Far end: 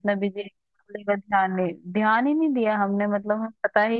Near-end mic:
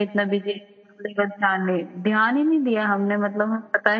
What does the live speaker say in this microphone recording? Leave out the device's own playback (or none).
none